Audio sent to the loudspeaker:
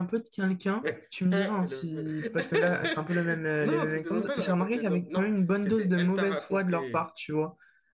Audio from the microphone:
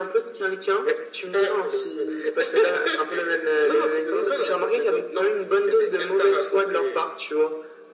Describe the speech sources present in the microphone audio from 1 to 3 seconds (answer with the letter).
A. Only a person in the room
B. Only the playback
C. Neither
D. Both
B